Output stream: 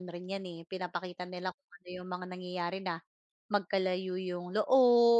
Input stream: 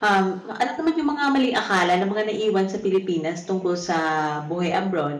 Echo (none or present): none